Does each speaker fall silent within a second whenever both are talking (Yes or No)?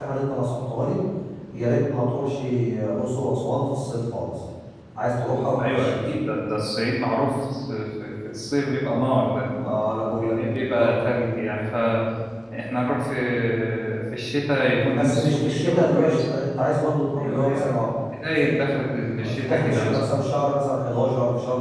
No